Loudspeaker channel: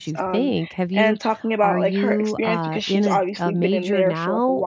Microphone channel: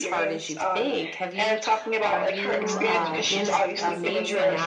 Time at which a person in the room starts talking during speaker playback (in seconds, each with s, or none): 2.5 s